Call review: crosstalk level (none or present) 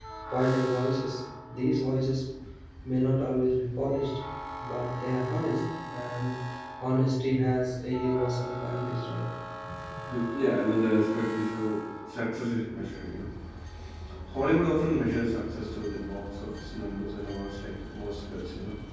none